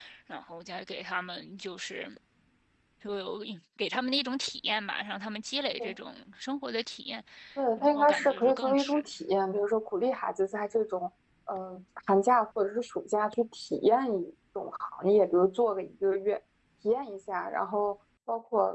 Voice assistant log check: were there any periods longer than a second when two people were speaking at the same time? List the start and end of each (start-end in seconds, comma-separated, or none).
7.8-9.1